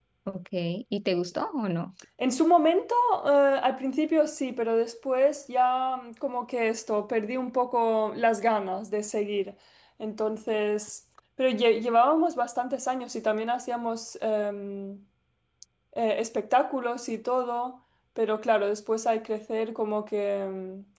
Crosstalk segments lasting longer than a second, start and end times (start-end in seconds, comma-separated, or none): none